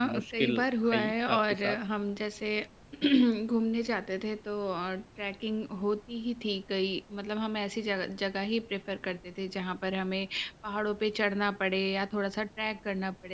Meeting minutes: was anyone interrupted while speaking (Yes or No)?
Yes